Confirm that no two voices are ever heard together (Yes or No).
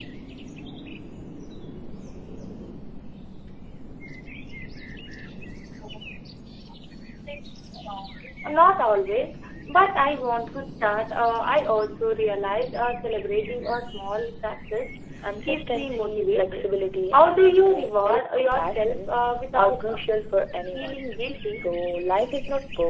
No